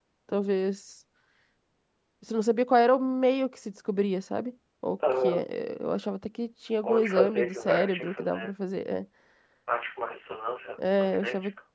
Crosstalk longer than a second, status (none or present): present